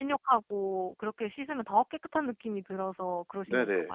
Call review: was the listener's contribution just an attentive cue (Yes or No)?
No